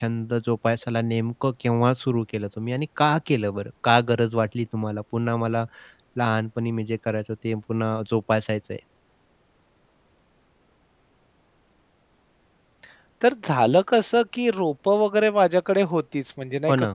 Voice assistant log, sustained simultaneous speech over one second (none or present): none